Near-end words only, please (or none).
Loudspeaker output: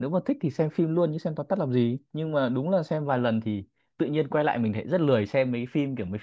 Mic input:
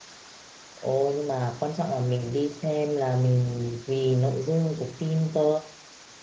Ôi nhưng mà quan trọng là mình đi xem là mình vì nội dung của phim cơ